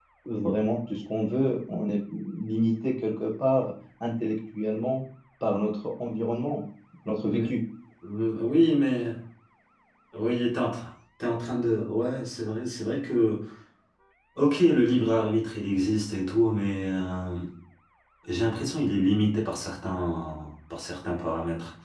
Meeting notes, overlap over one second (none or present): none